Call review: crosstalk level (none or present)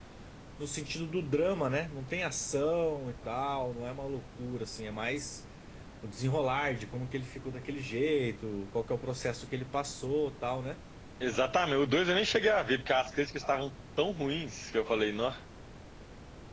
none